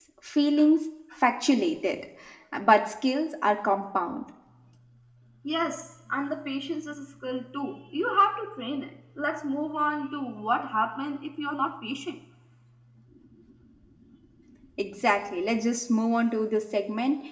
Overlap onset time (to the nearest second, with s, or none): none